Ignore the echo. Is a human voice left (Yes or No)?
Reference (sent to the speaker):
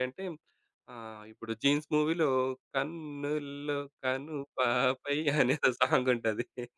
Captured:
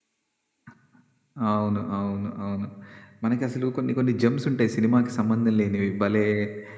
Yes